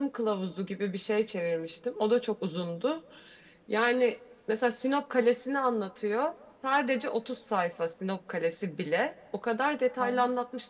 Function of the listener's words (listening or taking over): listening